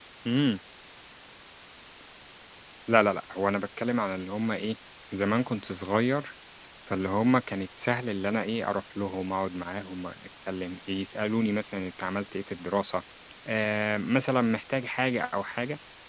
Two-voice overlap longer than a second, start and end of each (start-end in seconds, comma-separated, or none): none